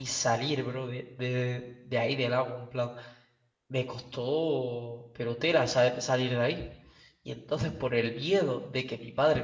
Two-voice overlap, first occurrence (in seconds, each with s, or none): none